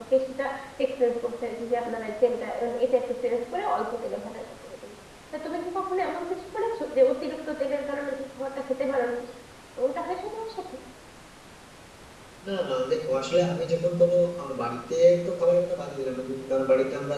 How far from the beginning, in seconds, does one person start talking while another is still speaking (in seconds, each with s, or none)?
none